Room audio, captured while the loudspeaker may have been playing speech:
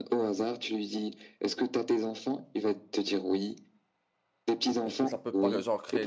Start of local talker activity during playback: 4.8 s

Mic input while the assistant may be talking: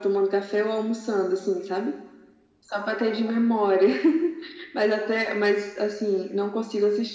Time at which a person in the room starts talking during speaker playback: none

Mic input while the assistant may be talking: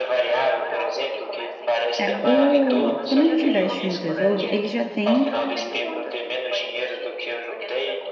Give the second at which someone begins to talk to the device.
1.9 s

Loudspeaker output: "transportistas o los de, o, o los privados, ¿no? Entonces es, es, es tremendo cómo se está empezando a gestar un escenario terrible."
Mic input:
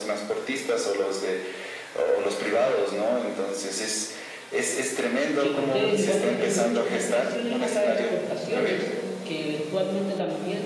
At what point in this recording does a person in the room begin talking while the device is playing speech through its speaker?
5.4 s

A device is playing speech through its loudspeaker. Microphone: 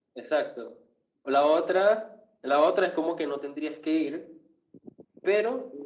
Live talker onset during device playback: none

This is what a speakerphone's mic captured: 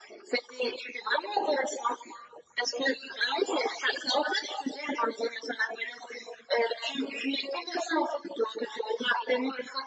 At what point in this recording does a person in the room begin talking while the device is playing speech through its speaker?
none

